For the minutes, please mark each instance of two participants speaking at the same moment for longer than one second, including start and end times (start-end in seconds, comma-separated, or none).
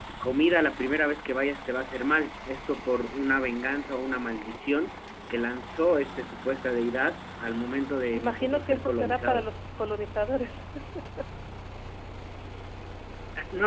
8.1-9.5